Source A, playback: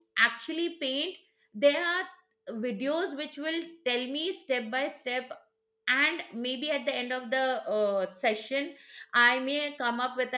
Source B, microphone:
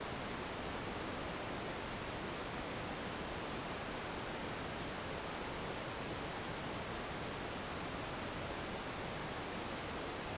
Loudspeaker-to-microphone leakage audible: No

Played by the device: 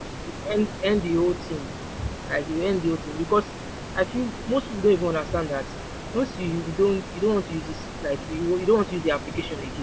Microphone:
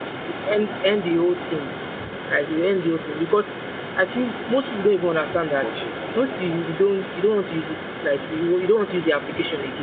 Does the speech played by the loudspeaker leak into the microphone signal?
Yes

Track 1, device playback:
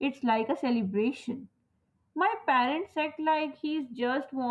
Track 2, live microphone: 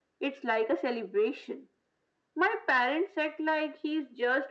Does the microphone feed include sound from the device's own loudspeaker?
Yes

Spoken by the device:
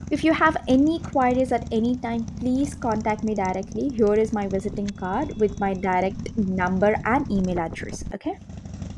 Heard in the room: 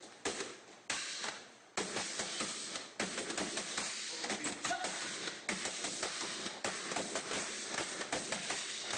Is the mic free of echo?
Yes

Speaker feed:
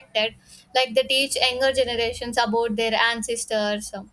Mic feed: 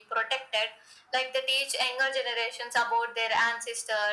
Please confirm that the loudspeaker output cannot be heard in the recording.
No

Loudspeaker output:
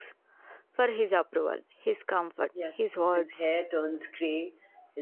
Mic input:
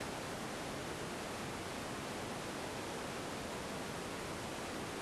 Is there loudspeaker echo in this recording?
No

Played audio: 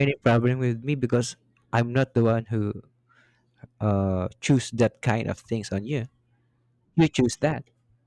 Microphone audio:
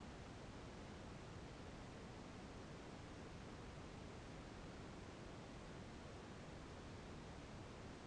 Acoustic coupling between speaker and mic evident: No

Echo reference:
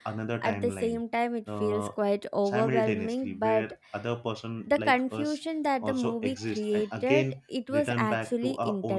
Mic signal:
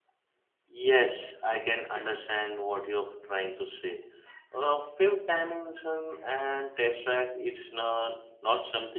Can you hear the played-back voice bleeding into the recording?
No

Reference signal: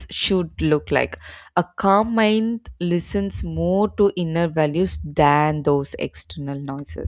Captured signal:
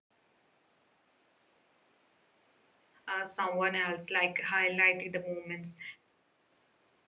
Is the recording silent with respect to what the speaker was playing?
Yes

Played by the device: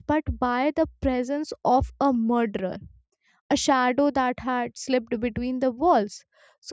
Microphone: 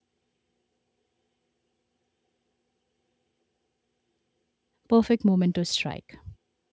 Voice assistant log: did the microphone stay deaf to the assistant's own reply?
Yes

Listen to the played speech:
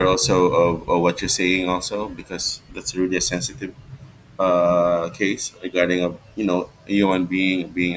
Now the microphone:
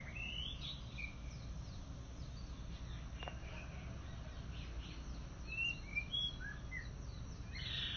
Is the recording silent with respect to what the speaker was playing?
Yes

